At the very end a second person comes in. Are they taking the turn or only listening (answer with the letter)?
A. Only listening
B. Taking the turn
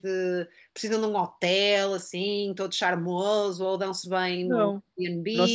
B